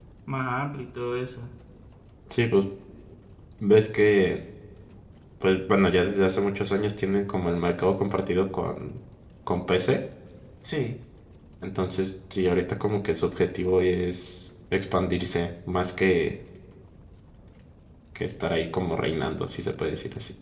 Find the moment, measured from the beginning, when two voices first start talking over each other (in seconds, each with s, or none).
none